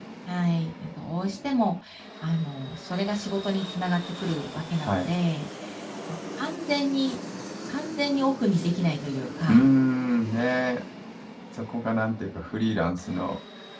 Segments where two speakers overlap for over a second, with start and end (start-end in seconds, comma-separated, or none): none